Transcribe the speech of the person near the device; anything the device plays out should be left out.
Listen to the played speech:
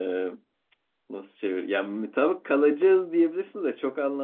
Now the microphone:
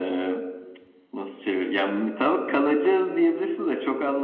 none

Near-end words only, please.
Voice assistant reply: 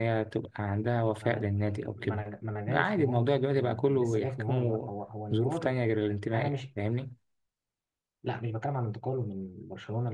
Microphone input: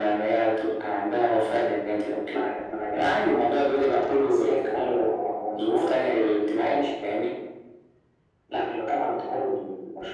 none

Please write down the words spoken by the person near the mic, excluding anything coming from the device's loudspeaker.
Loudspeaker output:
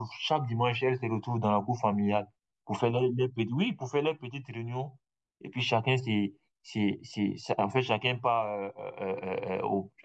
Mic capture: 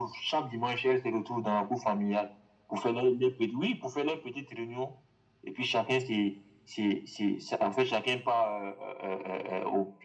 none

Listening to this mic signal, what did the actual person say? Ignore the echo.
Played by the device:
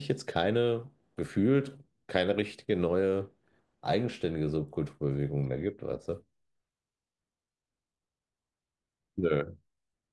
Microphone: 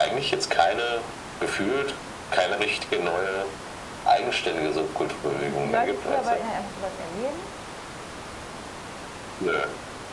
die viele Leute früher wollten halt einfach sowas erleben.

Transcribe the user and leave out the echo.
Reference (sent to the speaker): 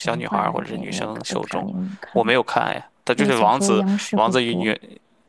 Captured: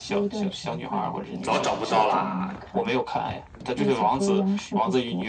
早找不到啦。

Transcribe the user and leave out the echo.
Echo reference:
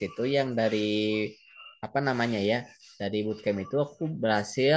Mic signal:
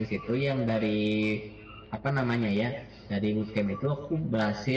none

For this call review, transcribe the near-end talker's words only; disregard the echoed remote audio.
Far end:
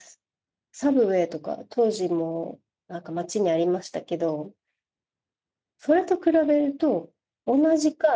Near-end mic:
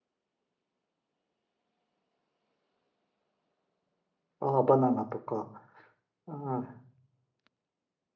ああ、バナナとか、ああ、

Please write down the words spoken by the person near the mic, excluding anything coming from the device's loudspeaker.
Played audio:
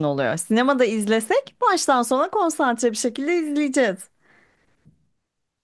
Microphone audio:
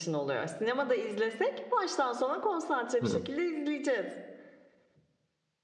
He.

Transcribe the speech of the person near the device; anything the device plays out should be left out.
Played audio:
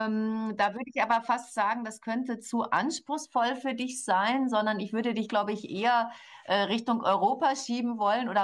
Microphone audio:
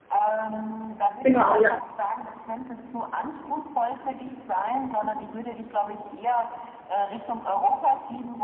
Genau, ja.

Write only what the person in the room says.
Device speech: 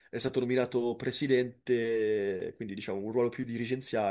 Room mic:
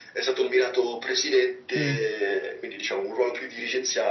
Mm.

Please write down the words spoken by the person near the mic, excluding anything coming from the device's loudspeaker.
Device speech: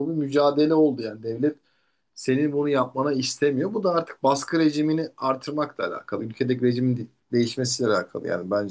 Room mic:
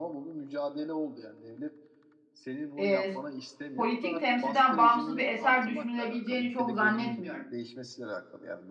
e, politik temsilden bağımsız bir eser düşünülebileceğini çok zannetmiyorum.

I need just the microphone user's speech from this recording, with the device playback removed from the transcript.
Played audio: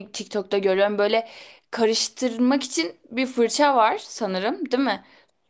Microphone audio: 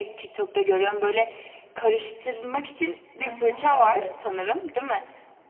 Aha, evet.

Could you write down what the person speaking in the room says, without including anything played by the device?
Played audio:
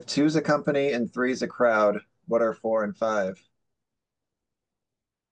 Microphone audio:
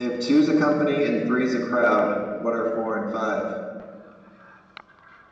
none

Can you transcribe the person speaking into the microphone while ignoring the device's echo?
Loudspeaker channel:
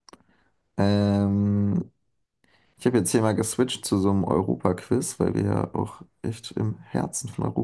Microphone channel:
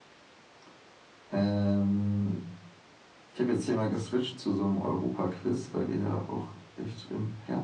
none

